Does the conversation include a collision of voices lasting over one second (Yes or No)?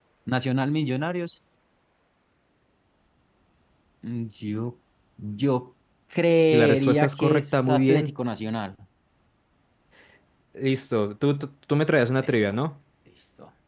Yes